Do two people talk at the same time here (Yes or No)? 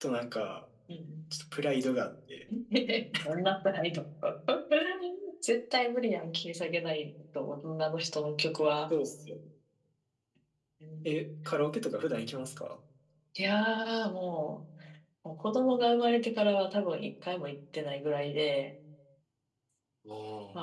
No